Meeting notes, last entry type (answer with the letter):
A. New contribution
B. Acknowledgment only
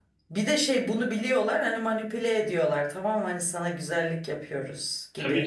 A